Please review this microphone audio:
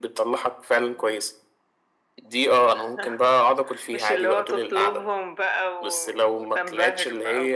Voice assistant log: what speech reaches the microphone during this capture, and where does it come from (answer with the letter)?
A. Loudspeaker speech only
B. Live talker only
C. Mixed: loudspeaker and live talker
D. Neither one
A